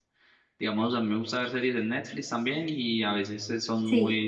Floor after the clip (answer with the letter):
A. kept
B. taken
A